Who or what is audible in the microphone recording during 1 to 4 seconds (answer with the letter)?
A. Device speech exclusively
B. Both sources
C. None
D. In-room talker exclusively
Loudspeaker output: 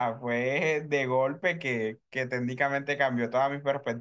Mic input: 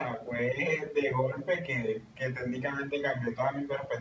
A